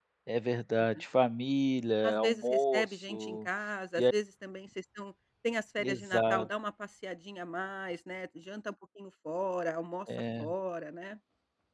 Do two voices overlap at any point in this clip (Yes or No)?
Yes